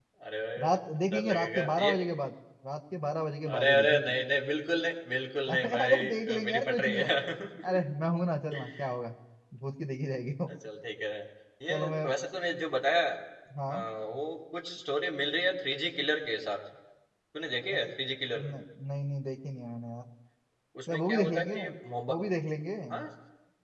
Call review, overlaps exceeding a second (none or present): present